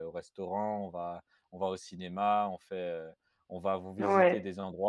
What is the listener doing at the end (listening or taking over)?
listening